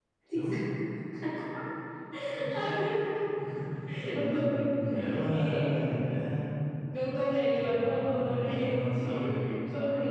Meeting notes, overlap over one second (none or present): present